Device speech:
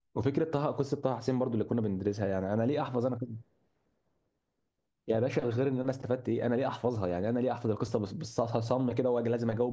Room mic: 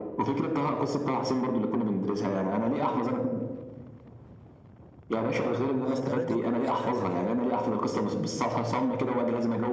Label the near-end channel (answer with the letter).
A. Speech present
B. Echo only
A